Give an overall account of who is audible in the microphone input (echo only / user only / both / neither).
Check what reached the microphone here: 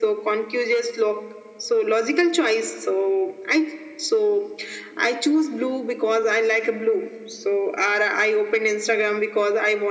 echo only